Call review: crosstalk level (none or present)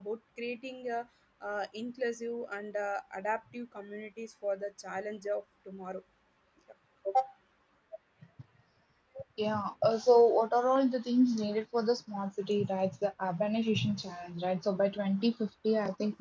none